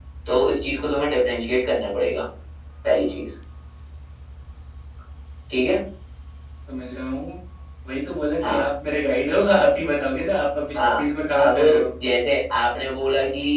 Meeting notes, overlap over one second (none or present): none